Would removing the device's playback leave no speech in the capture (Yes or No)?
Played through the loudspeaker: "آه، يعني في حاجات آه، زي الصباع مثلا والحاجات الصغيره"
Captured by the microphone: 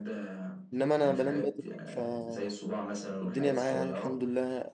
No